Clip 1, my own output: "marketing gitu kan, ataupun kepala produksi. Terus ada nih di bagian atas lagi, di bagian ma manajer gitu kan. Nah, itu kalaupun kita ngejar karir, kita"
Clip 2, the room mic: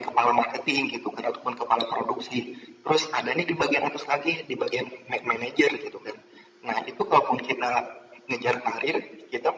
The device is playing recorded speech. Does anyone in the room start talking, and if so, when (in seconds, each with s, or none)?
none